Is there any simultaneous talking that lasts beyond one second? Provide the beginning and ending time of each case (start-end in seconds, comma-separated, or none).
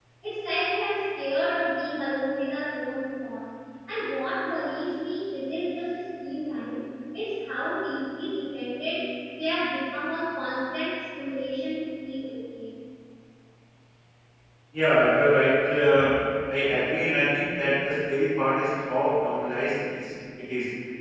none